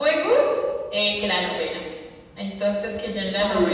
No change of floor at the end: Yes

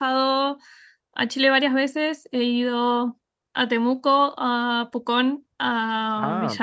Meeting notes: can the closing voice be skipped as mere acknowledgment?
Yes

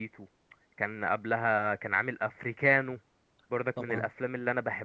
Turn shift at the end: No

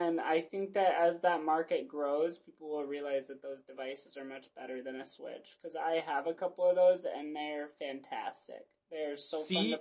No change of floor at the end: Yes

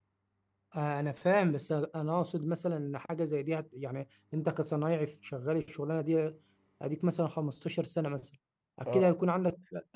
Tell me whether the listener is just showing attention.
Yes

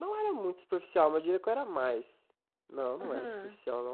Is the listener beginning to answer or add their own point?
No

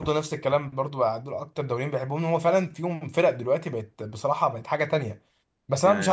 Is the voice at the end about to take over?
No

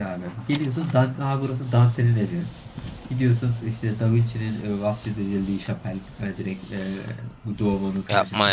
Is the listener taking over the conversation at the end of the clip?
Yes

